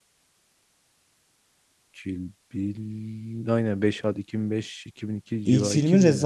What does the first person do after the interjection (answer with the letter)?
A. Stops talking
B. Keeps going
A